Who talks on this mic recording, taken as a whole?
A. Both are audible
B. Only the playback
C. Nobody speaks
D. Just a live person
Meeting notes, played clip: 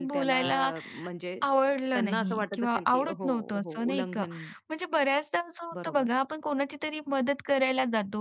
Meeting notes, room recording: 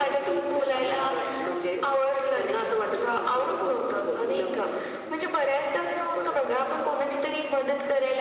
B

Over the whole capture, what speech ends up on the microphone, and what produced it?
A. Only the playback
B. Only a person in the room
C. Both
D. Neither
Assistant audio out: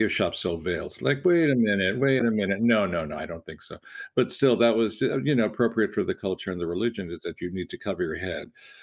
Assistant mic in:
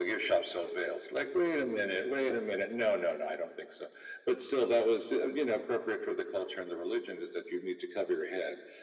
A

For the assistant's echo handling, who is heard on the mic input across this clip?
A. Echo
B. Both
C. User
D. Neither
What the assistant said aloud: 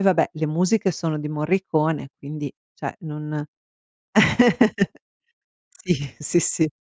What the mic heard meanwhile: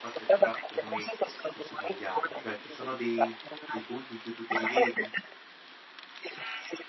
B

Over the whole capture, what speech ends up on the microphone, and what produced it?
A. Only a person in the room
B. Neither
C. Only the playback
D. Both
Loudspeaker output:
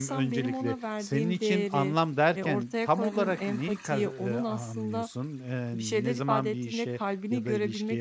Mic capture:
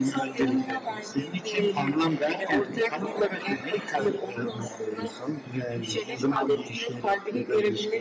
C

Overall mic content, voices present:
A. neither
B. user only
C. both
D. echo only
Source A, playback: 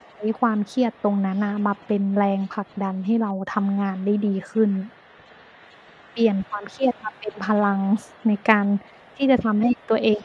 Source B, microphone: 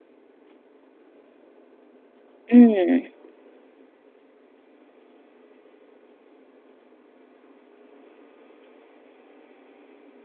B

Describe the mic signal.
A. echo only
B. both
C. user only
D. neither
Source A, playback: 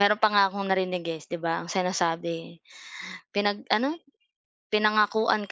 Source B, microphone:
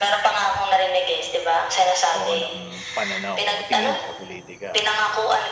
B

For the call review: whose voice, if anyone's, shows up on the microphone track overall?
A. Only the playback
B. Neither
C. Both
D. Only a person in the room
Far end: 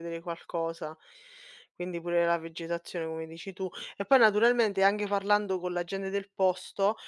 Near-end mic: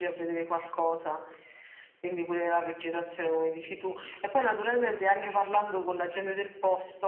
A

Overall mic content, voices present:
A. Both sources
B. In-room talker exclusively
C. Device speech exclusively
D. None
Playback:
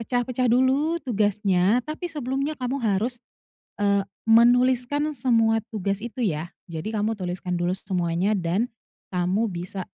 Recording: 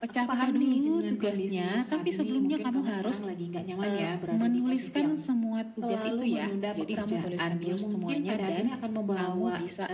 A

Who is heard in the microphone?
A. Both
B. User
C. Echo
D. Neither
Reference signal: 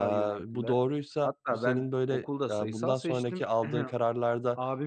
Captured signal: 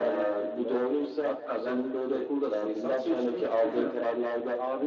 C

